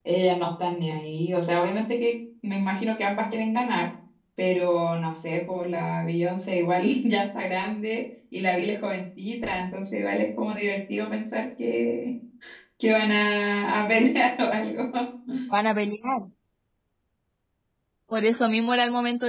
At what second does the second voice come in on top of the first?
none

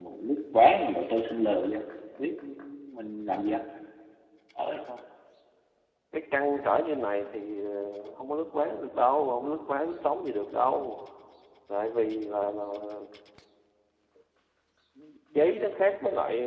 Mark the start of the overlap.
none

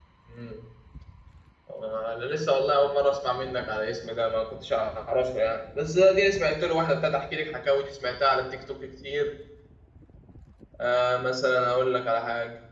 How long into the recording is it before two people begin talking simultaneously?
none

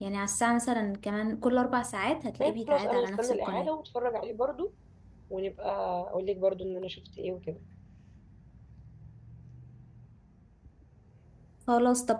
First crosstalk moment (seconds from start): 2.4 s

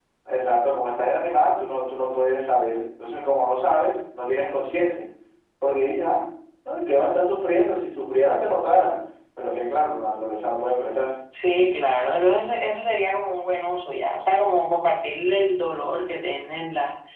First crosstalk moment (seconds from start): none

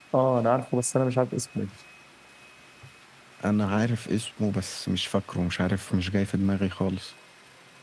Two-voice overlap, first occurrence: none

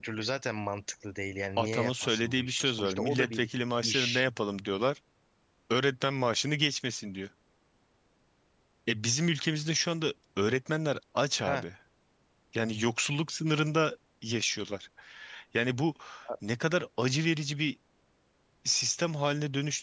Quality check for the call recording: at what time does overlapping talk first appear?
1.6 s

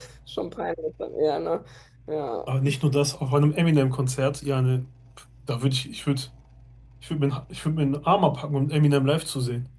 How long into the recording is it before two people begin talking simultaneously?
none

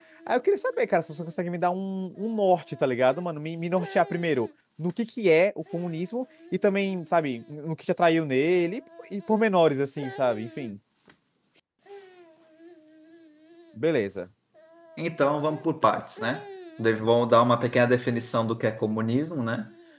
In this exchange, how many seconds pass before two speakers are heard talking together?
none

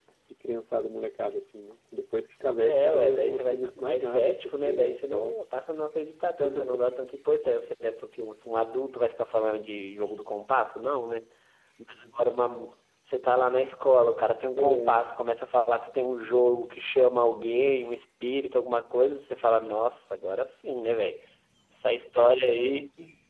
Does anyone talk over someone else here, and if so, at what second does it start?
2.6 s

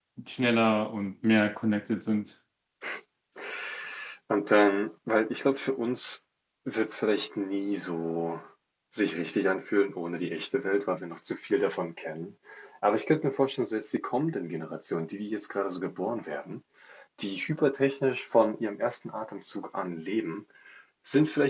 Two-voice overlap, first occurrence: none

